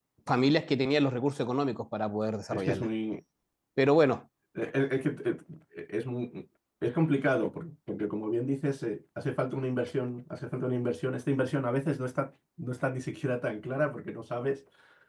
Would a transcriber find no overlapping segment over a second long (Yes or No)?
Yes